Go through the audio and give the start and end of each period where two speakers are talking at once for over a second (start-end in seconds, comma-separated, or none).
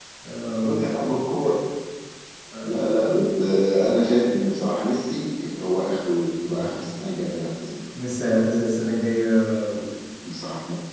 none